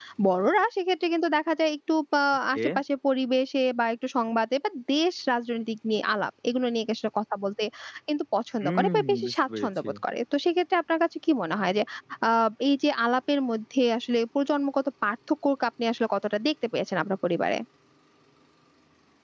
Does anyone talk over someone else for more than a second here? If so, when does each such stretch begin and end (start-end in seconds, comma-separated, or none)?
8.6-9.9